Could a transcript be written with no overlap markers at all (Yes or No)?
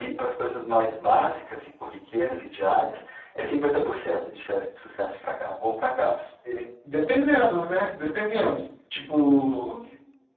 Yes